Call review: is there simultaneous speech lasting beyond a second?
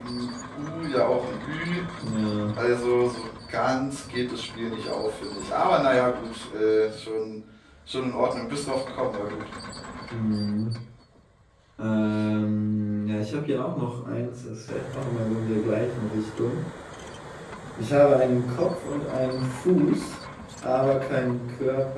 No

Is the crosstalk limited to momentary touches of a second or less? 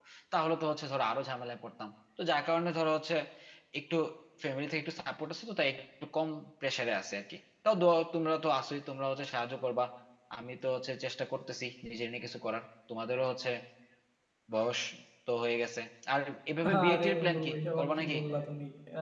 No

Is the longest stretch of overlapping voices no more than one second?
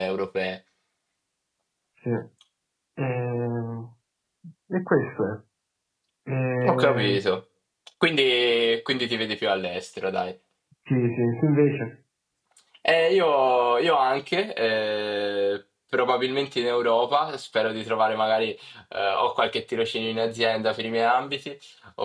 Yes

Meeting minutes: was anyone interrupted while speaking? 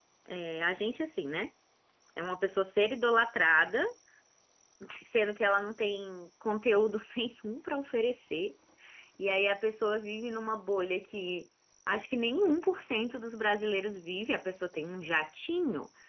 No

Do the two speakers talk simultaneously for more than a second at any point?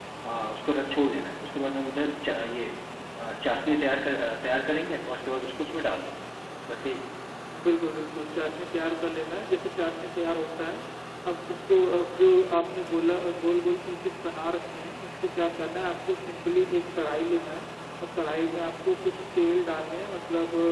No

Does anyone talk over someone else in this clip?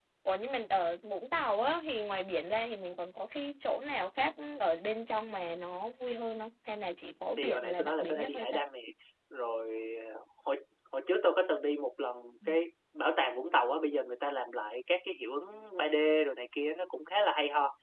Yes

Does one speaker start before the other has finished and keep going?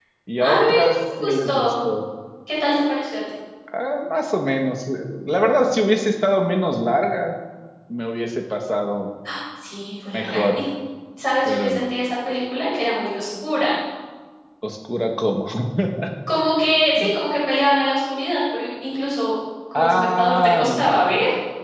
Yes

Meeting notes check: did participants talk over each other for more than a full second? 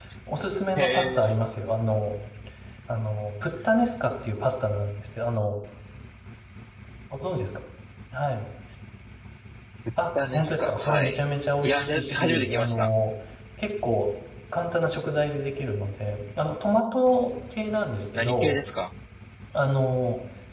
Yes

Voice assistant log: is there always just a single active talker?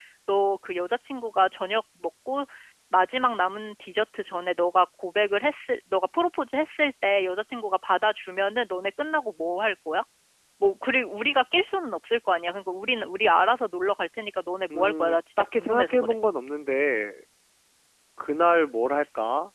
No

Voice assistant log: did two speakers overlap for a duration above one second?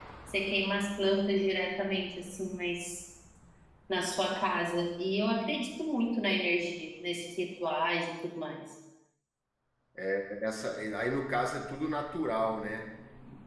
No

